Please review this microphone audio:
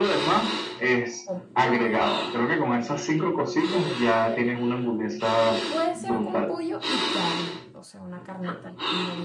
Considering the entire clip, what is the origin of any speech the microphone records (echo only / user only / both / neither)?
both